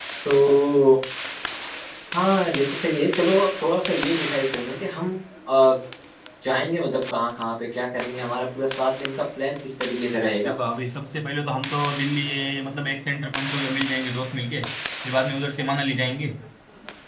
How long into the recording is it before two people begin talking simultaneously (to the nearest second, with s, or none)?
none